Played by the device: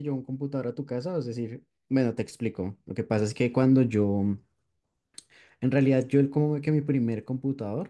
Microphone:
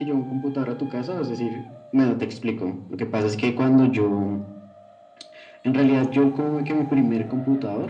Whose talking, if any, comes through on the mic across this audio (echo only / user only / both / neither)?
echo only